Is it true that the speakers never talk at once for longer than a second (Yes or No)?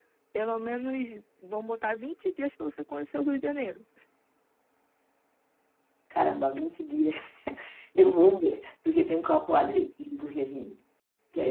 Yes